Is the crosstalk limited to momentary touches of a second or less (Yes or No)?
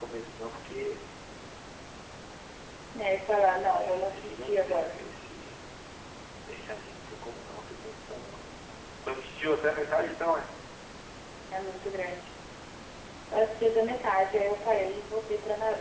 No